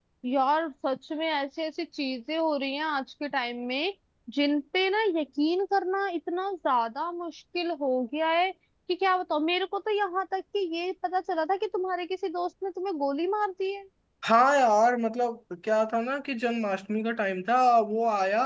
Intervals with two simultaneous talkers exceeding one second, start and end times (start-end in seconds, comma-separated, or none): none